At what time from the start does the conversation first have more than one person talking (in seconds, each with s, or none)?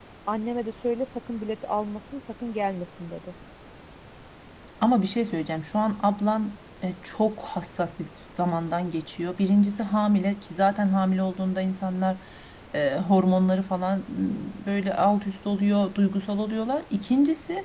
none